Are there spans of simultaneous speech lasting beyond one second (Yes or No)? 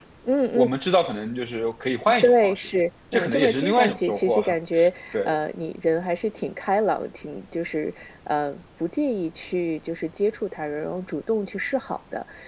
Yes